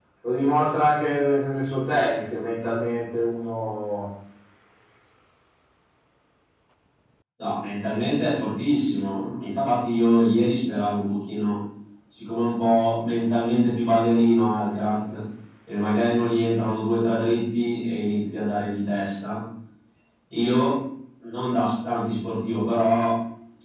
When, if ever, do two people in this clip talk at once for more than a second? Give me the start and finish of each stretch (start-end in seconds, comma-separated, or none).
none